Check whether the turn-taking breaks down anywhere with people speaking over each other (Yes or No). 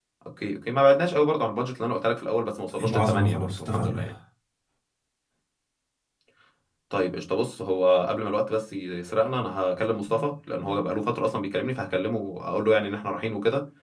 Yes